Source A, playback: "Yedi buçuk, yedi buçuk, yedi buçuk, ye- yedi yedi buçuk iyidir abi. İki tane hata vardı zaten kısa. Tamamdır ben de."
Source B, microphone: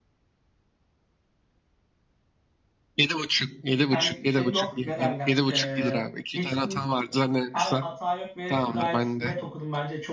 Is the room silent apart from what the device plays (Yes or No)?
No